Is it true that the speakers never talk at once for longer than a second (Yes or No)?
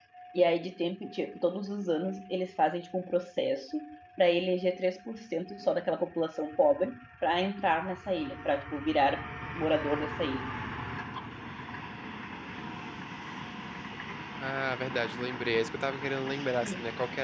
Yes